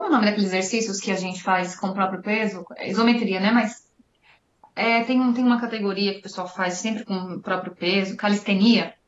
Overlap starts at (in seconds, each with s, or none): none